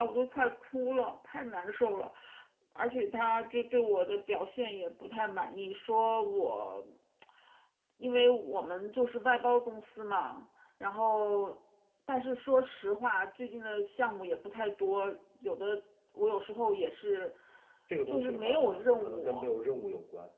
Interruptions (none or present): present